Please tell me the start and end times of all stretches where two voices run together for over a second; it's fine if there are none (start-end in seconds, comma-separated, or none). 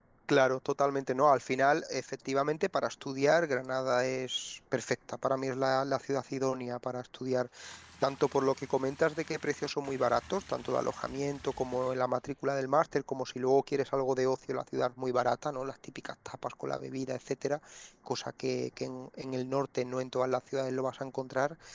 none